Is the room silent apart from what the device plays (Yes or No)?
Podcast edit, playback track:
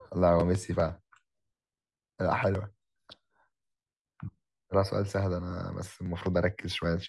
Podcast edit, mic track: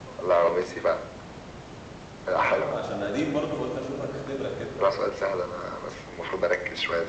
No